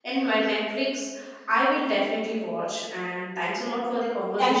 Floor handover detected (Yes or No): Yes